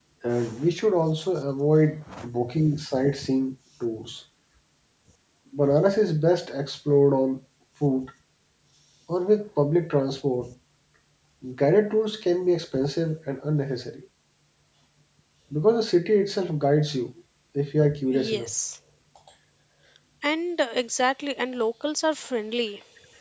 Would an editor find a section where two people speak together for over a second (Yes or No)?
No